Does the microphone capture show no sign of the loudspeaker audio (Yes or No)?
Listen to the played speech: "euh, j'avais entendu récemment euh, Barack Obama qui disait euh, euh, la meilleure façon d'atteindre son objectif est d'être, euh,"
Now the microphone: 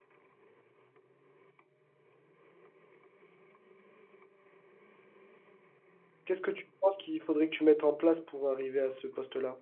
Yes